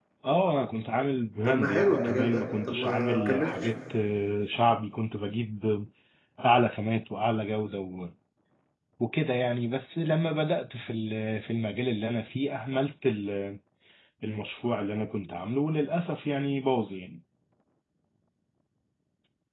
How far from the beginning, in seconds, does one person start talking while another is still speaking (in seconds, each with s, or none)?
1.4 s